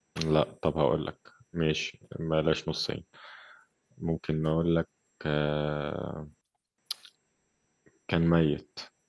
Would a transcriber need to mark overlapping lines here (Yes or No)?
No